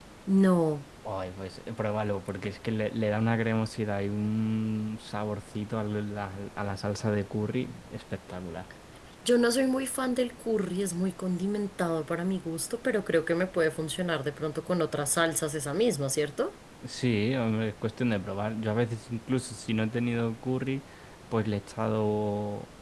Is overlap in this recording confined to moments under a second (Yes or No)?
Yes